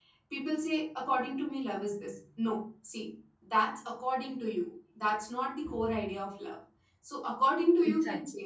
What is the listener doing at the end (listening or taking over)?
listening